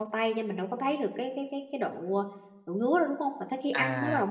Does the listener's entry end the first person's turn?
Yes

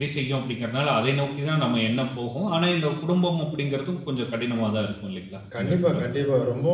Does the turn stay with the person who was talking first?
No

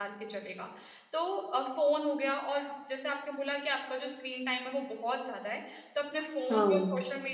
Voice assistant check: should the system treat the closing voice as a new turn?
No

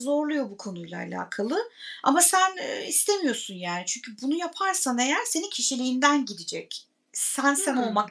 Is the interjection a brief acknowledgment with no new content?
Yes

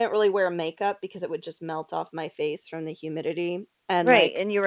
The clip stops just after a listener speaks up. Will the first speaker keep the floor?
No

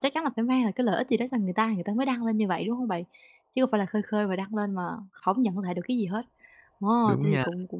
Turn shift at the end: No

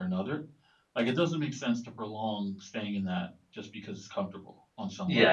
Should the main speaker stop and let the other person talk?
Yes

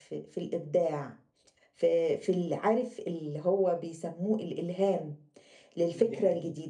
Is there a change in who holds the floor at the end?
No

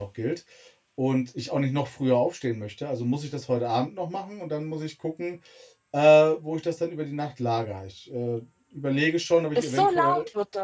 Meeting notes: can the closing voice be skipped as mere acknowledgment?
No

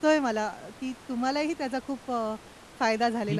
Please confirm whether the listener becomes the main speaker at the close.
Yes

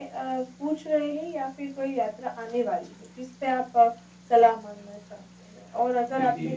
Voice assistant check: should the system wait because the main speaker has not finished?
Yes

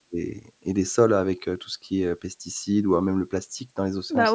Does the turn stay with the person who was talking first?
No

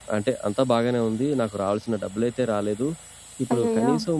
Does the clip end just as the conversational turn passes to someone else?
No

